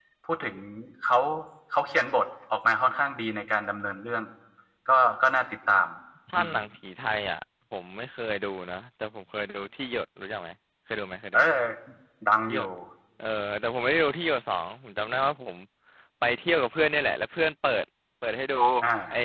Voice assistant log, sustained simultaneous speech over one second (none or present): none